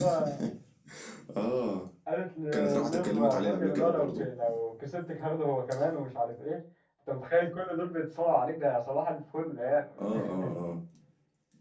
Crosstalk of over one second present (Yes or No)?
Yes